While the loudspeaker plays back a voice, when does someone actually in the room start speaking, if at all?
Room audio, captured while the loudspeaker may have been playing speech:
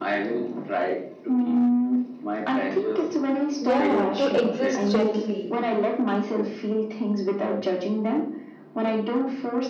4 s

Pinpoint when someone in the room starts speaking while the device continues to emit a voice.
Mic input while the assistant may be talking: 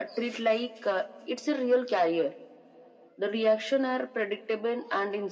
none

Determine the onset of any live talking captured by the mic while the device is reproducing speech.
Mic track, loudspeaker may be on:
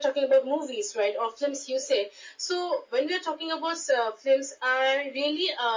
none

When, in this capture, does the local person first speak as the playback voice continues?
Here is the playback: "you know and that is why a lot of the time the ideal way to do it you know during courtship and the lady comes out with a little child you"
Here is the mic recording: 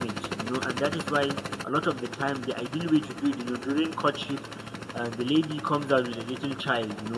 none

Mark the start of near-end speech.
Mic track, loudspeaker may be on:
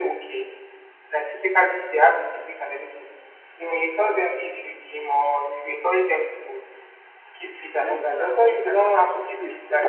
8 s

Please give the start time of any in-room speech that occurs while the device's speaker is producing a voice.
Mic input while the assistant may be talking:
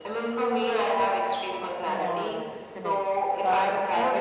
2 s

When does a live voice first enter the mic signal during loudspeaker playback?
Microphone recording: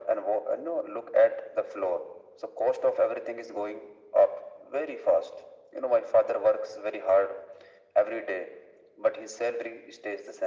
none

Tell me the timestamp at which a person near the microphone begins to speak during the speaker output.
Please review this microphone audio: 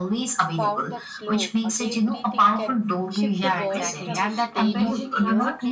1 s

